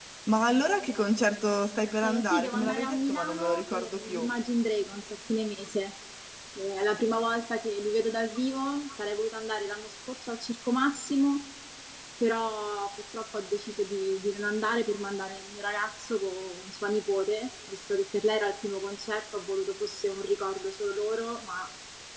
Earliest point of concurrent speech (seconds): 2.0 s

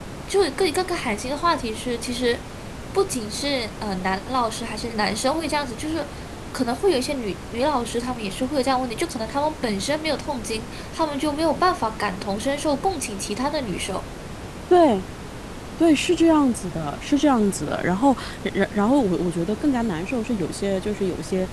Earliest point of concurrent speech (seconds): none

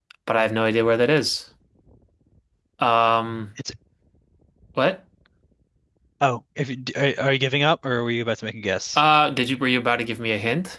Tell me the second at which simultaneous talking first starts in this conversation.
none

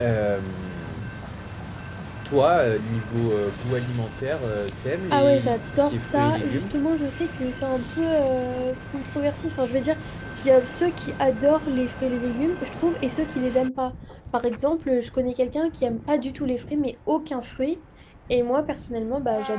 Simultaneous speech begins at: 5.1 s

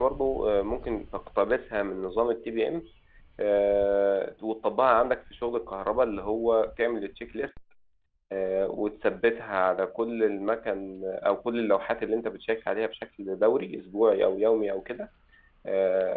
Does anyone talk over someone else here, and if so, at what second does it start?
none

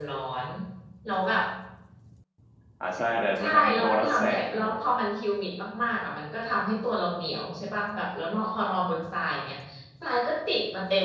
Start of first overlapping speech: 3.4 s

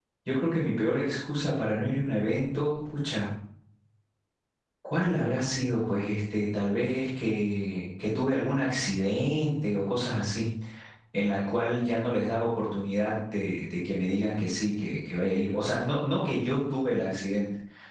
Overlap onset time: none

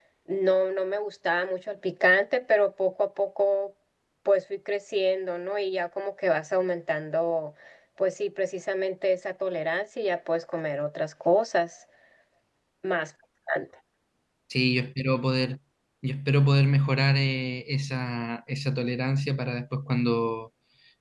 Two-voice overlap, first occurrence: none

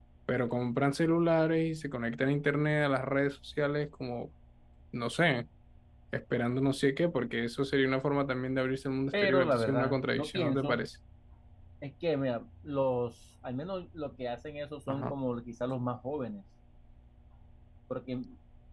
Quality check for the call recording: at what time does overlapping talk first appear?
9.1 s

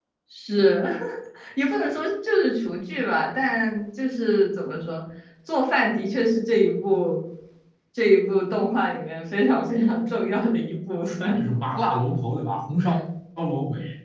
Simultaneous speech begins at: none

